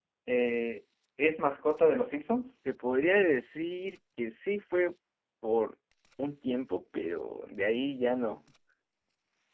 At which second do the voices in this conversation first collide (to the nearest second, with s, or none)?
none